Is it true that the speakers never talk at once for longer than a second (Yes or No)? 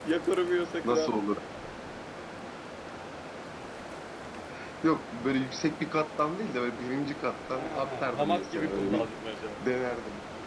No